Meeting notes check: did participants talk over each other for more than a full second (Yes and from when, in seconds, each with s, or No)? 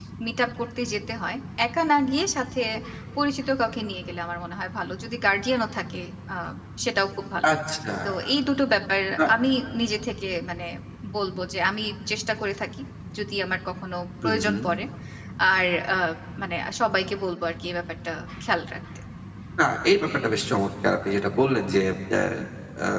No